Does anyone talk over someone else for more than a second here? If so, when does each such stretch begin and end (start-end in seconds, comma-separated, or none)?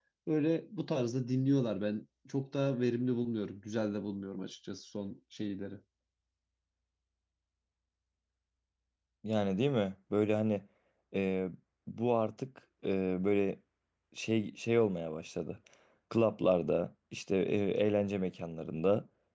none